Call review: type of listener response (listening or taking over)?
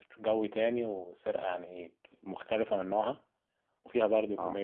listening